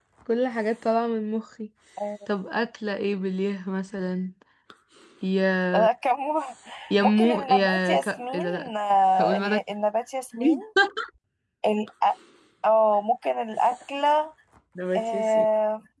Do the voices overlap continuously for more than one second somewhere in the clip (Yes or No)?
Yes